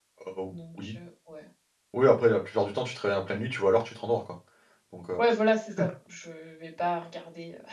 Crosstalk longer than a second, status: none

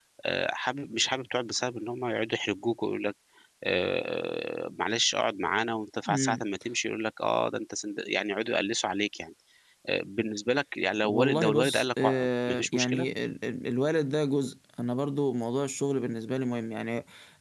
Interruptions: present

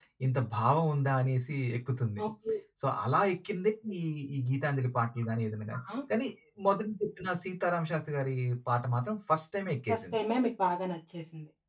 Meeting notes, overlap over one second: none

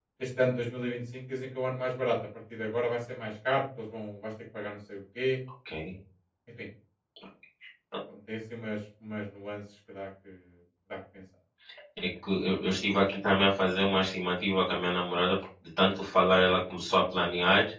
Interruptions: none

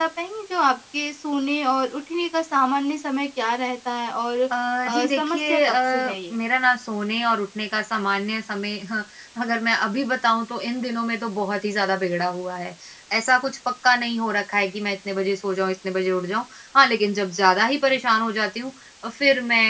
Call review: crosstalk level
present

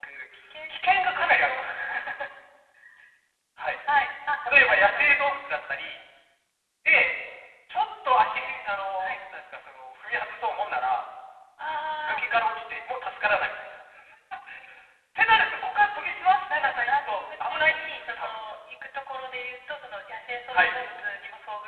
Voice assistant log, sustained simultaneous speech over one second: present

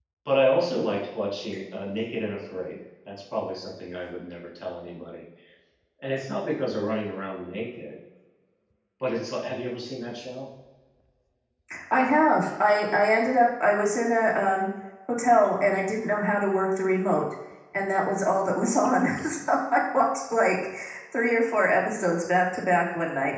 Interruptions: none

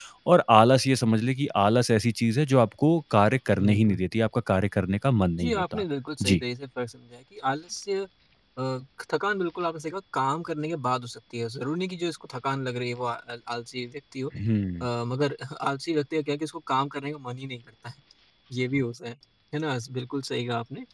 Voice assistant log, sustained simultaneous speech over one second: none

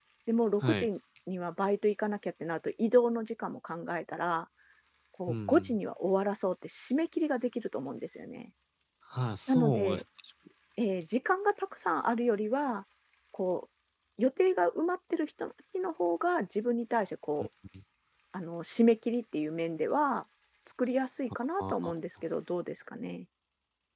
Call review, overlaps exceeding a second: none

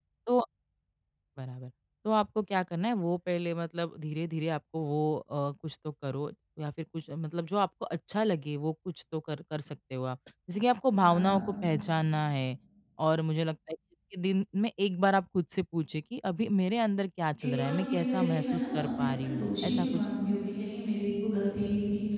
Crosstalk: present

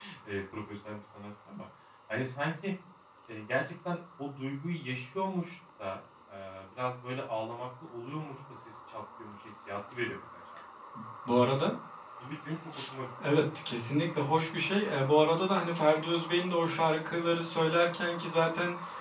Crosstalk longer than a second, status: none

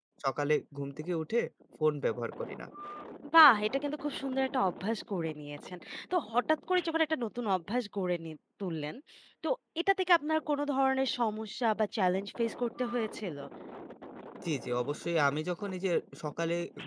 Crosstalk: none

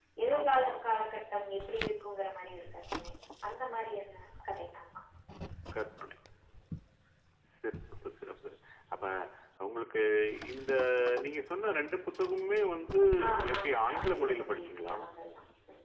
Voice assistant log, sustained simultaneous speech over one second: present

